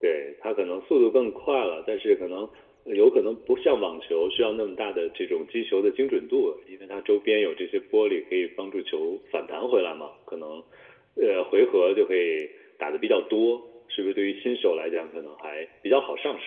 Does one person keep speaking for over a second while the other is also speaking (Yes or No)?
No